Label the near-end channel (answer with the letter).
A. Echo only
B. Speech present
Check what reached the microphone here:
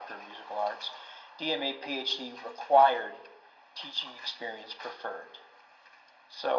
A